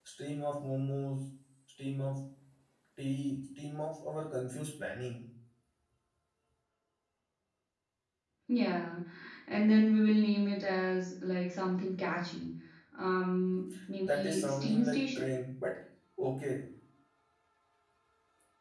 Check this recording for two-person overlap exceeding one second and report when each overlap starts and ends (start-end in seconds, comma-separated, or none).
14.0-15.3